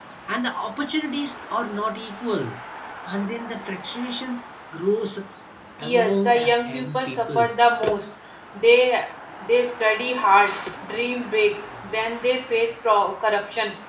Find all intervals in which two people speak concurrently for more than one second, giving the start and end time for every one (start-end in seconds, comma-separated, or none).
5.8-7.5